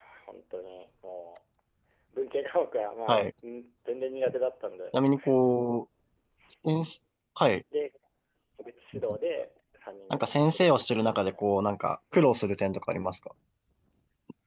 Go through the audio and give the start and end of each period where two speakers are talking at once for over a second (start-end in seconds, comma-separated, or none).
10.1-11.4